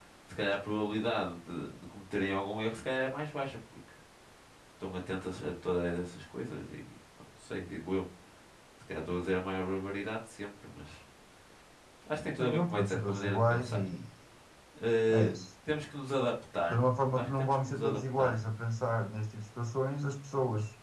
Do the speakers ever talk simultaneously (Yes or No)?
Yes